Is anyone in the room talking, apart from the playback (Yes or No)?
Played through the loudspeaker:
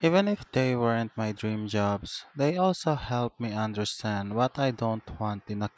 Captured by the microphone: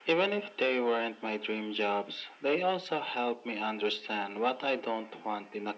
No